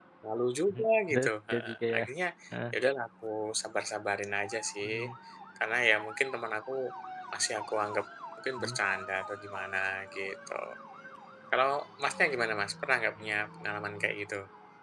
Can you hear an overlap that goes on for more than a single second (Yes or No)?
Yes